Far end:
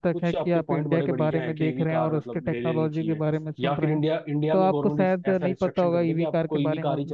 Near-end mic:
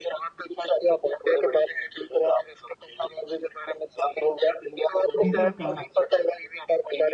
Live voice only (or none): डीजल कार